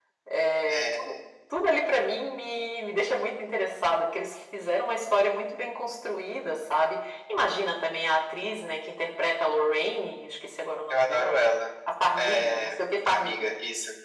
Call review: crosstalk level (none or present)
present